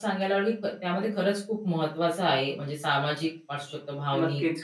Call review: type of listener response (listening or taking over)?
listening